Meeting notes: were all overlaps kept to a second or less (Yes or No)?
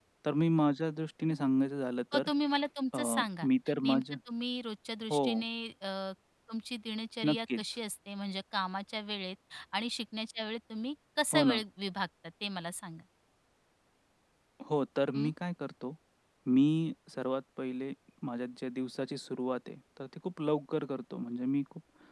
Yes